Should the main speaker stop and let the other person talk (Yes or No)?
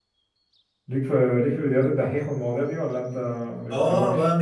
Yes